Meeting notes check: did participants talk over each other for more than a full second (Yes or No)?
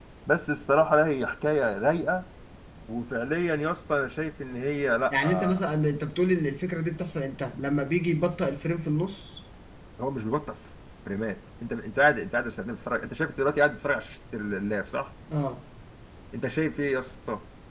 No